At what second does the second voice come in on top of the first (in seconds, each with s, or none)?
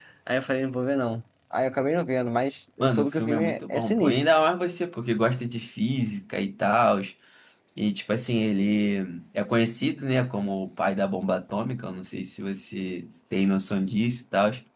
2.8 s